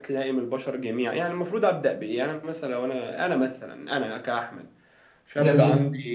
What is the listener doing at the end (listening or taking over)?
listening